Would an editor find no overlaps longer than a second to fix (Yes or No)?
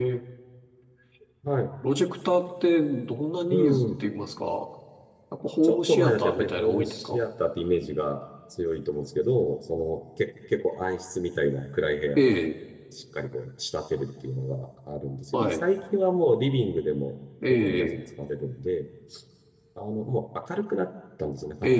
No